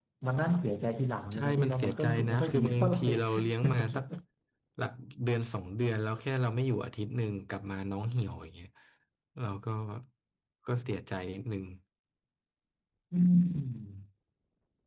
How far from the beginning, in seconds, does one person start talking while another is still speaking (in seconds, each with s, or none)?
1.3 s